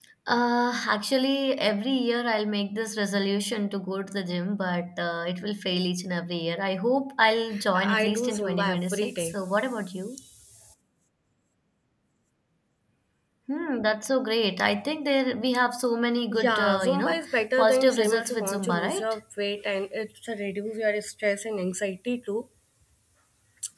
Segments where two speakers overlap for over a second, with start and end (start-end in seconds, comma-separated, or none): 7.8-9.3, 16.3-19.1